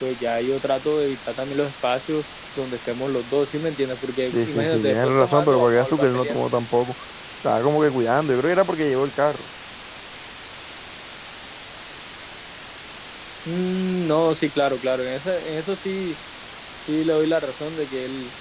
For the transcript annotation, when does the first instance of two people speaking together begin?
4.3 s

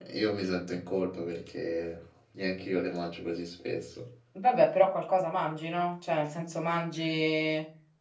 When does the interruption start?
none

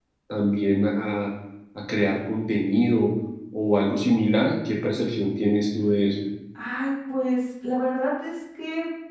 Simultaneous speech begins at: none

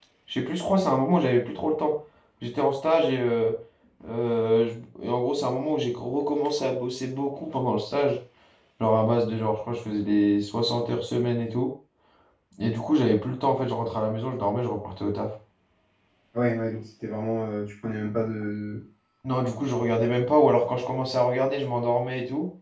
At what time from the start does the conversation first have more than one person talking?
none

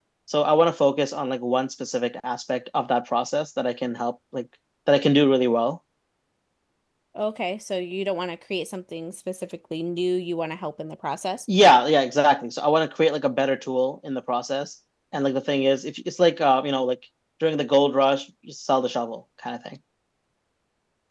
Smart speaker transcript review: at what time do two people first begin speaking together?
none

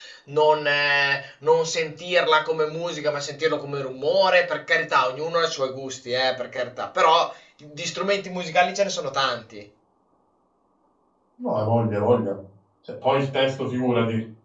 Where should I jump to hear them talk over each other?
none

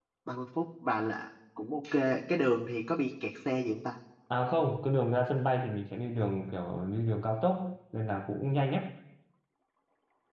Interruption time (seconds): none

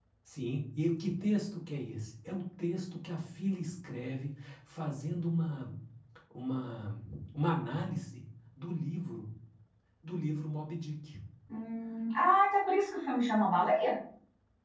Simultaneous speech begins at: none

